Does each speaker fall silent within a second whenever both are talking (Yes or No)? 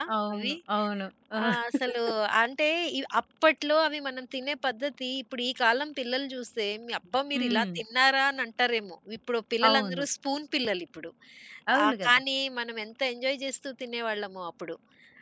Yes